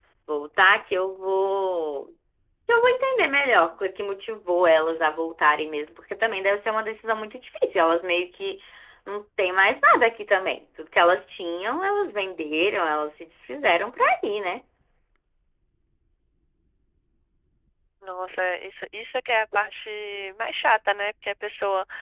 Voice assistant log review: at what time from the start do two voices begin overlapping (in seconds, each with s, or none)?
none